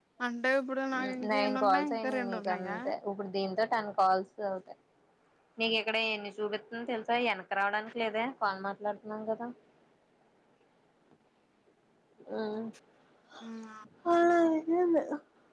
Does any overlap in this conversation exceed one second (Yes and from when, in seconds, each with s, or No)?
Yes, from 1.1 s